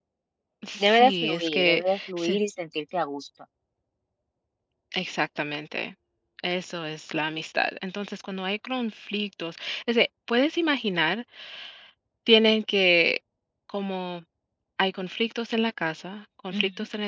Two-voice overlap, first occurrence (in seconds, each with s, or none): 0.8 s